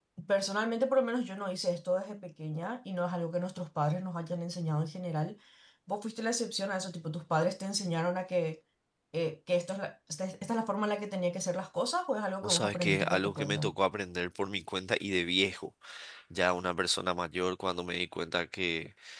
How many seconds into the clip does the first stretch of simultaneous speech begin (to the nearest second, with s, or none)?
12 s